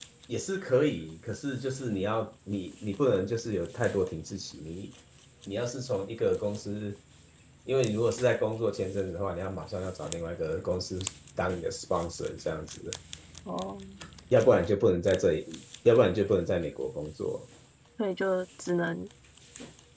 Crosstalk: none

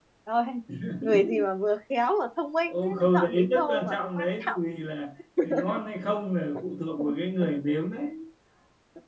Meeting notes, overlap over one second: present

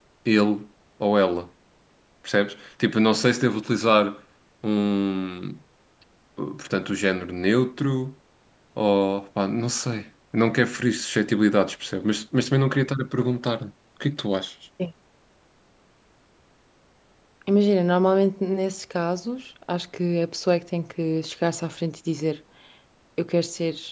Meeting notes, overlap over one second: none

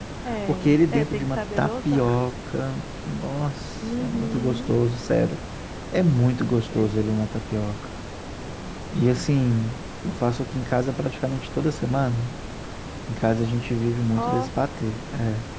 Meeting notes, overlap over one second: present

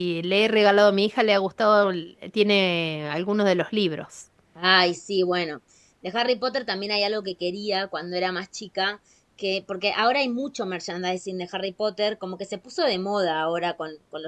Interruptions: none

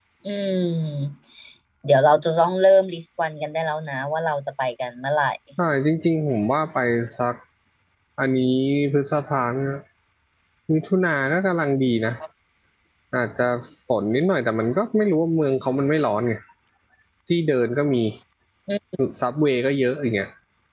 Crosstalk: none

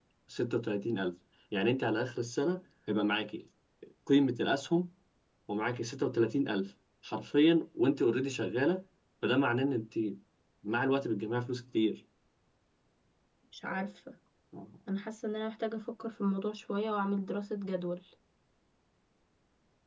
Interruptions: none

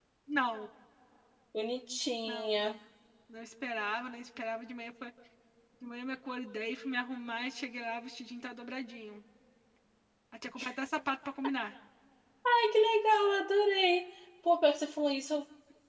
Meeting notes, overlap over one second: none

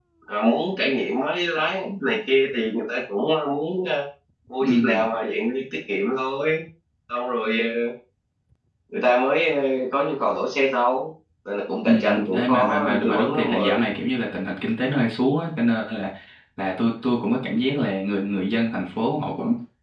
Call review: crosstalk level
present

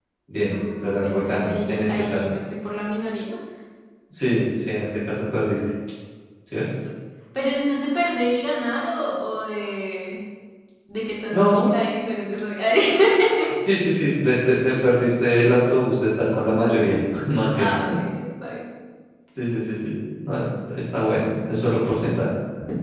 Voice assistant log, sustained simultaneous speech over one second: present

